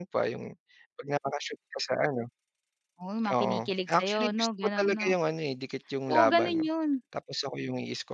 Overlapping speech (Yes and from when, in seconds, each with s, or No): Yes, from 3.3 s